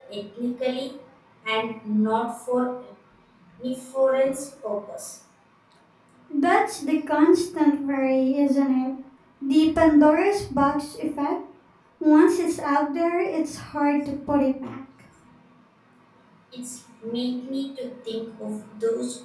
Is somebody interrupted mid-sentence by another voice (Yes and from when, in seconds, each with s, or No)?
No